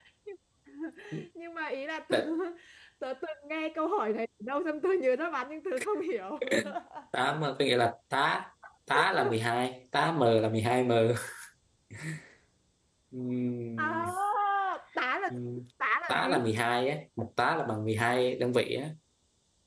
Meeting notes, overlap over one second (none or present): none